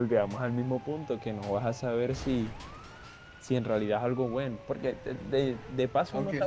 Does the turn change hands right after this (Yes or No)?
Yes